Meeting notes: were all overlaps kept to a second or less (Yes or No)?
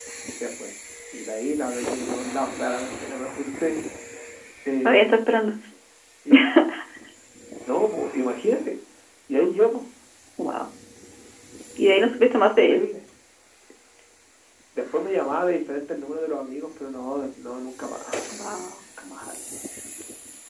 Yes